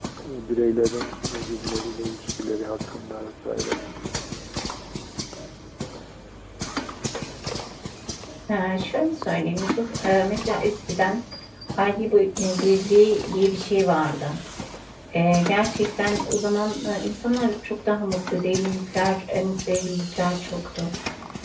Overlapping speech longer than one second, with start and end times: none

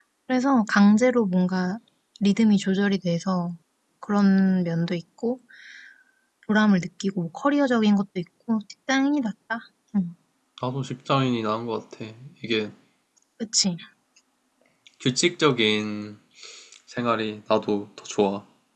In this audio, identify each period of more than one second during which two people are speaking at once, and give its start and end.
none

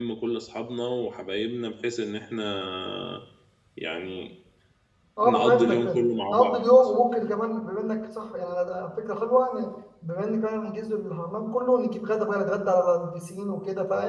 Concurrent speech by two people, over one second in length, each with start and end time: 5.2-6.6

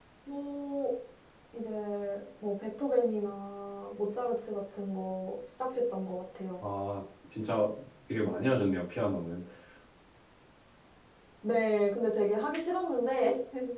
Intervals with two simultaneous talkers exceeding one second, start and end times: none

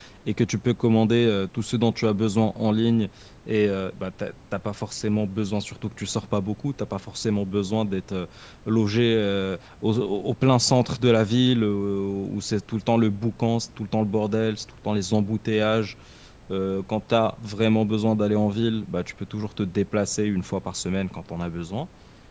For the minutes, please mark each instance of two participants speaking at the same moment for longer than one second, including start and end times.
none

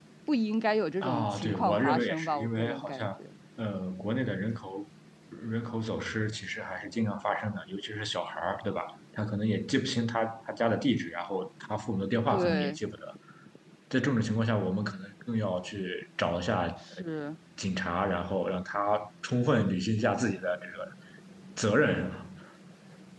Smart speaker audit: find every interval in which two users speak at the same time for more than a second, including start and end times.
1.0-3.1

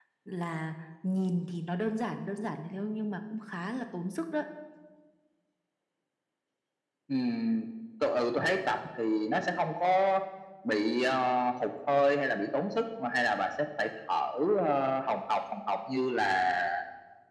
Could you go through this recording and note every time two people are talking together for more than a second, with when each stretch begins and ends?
none

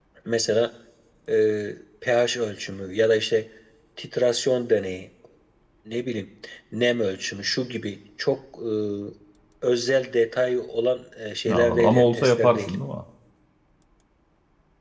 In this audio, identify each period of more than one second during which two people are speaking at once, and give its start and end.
11.5-12.8

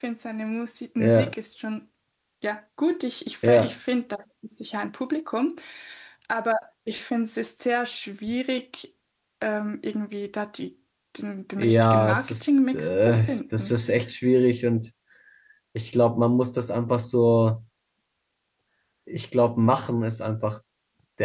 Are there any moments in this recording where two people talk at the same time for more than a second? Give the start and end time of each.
11.6-13.7

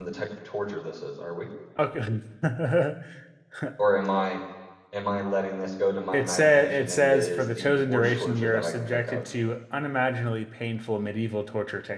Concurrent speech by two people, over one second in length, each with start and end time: 6.1-9.2

